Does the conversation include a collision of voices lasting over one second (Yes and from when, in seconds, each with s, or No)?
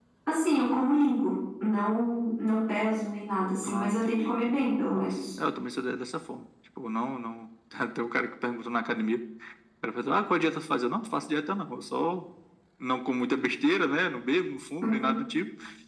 Yes, from 3.7 s